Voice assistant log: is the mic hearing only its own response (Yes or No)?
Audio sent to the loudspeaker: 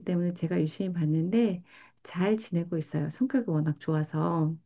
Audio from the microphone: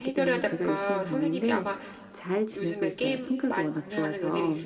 No